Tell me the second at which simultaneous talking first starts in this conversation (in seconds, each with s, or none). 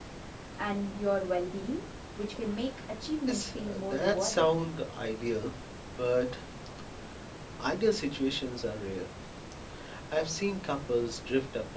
3.3 s